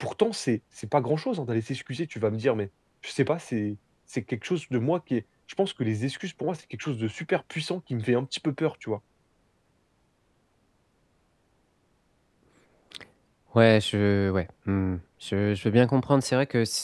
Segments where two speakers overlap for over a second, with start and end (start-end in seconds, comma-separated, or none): none